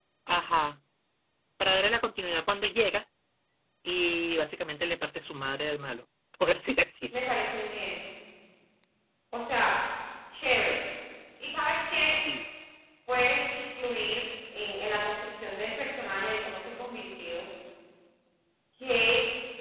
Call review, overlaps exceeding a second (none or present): none